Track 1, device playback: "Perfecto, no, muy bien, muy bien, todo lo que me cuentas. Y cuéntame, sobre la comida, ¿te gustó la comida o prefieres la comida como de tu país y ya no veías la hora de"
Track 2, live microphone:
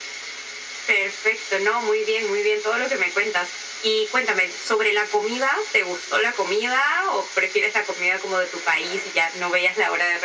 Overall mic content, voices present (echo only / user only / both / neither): echo only